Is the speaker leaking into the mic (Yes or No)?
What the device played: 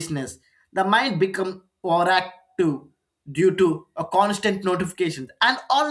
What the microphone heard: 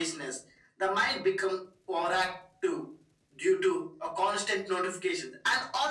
Yes